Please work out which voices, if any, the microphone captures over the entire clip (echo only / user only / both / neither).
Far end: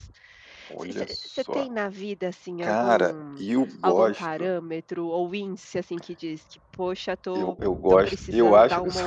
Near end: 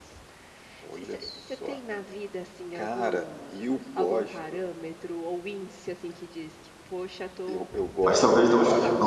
both